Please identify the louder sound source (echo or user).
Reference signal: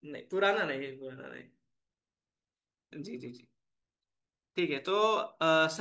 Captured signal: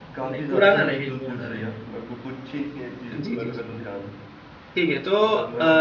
echo